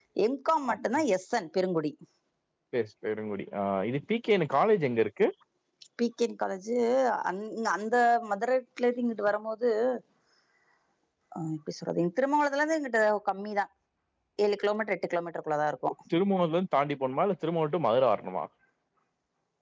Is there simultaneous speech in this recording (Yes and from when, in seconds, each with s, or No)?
No